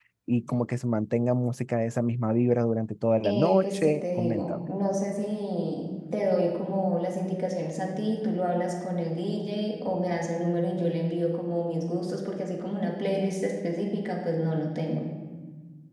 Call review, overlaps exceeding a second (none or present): present